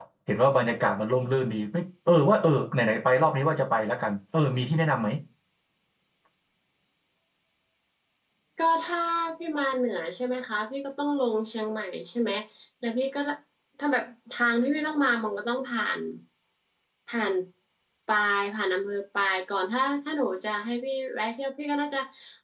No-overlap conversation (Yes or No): Yes